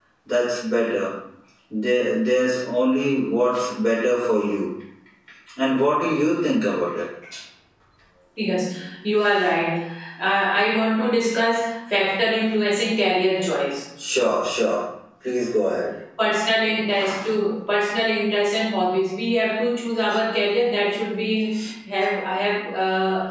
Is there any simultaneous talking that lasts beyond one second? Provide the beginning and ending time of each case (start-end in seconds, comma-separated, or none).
none